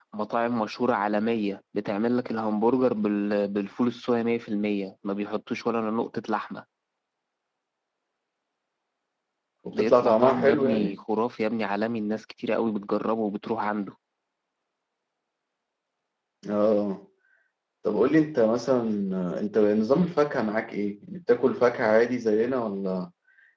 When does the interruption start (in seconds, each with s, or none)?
9.7 s